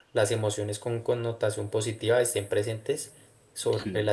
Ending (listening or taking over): listening